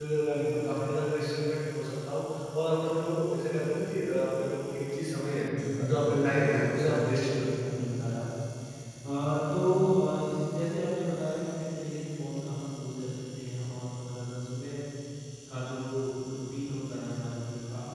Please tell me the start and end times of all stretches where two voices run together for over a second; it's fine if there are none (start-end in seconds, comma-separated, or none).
5.8-7.4